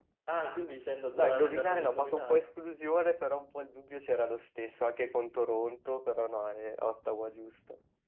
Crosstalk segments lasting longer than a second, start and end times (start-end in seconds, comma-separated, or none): 1.2-2.5